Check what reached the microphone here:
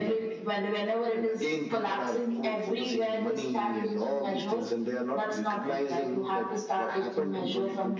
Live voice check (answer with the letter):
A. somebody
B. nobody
B